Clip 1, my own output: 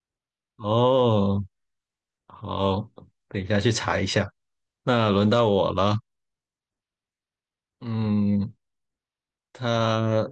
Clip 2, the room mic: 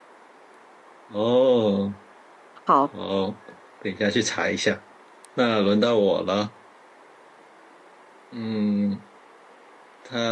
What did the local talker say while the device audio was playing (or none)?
好，